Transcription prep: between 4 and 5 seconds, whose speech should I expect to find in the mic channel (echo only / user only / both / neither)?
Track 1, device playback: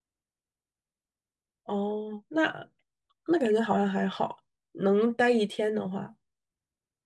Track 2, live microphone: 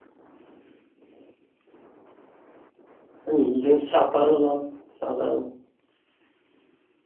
user only